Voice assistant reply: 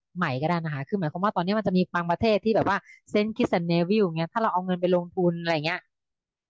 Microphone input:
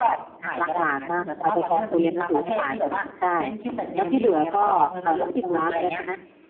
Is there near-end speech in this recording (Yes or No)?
Yes